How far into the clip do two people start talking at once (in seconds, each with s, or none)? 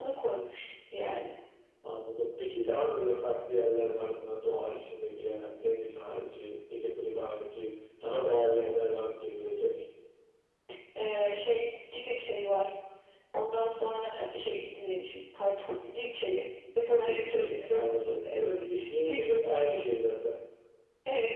16.9 s